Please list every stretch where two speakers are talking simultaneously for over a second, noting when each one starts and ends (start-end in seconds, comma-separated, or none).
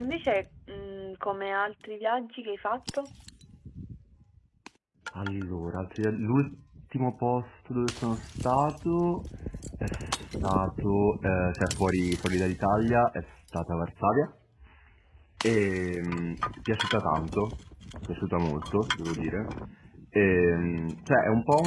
none